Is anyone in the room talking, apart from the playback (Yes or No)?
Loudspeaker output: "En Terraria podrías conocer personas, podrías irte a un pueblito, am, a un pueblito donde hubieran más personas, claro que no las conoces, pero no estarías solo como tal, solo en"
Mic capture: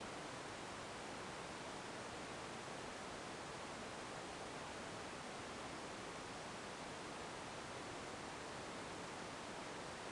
No